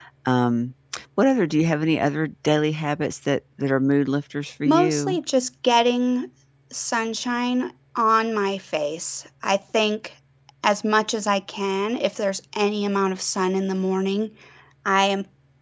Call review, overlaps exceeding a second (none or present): none